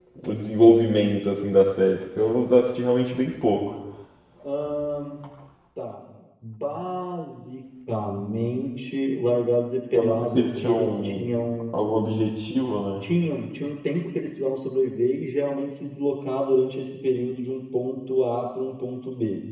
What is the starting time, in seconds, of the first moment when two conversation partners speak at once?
10 s

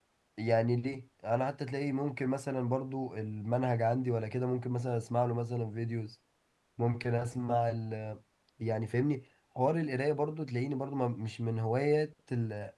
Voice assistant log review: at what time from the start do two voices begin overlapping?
none

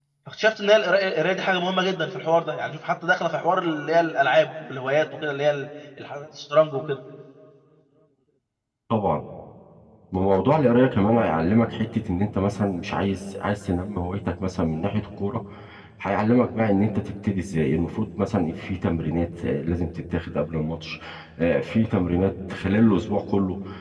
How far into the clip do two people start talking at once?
none

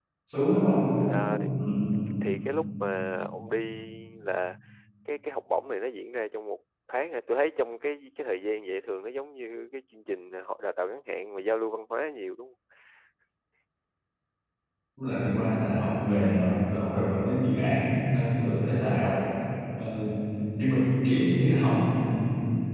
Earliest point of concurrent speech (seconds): none

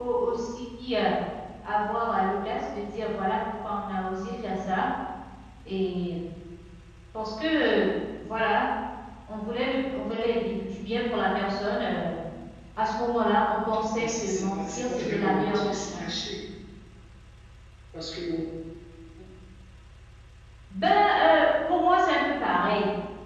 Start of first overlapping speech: 14 s

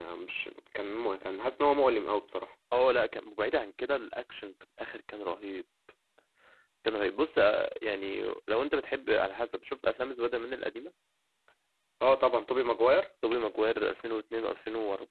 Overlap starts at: none

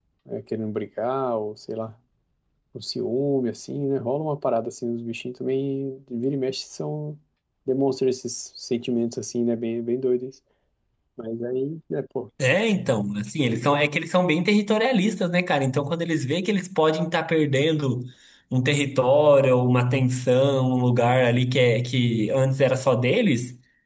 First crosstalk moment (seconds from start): none

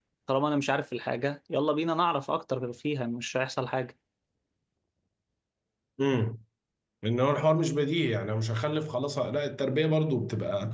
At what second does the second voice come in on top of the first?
none

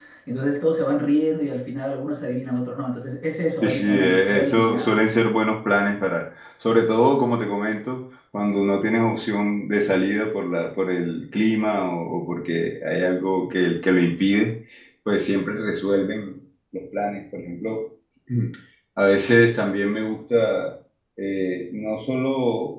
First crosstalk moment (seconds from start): 4 s

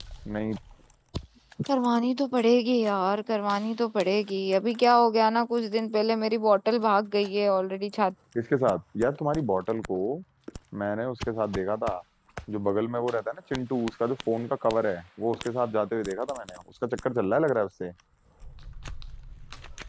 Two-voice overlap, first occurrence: none

